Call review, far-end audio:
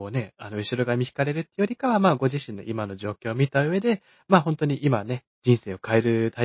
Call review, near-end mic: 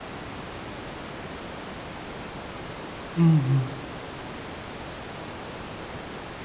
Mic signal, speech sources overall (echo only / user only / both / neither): user only